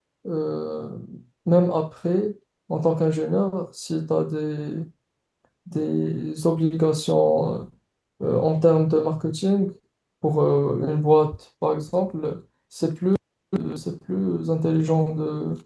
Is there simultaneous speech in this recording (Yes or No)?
No